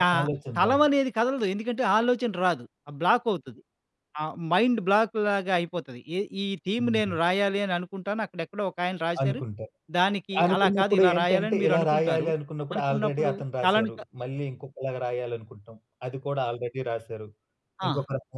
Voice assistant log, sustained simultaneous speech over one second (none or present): present